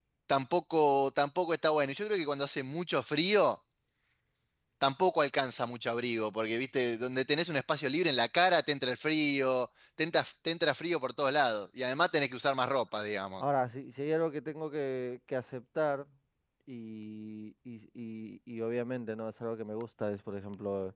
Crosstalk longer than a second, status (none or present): none